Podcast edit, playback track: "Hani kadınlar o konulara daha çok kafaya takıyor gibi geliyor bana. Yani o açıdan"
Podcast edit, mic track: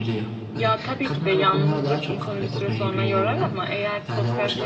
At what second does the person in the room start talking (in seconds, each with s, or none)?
0.5 s